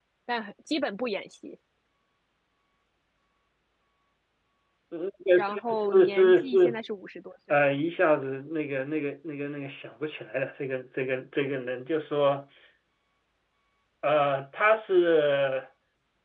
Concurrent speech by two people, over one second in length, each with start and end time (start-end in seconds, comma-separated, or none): 5.4-6.8